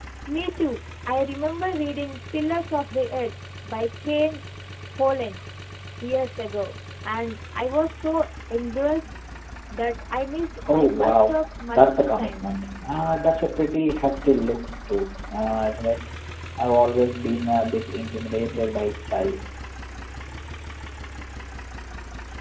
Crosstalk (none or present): present